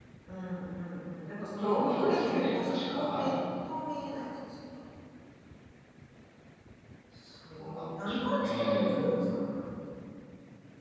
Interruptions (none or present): present